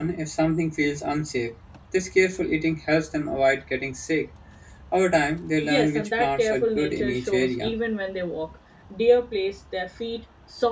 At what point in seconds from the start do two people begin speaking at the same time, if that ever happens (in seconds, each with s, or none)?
5.6 s